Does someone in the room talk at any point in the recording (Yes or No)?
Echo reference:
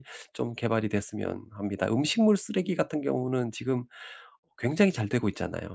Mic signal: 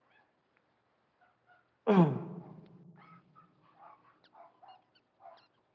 Yes